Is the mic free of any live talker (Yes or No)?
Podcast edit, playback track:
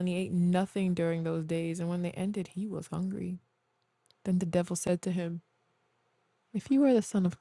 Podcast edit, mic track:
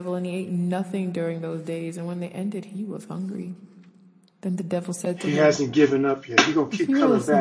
No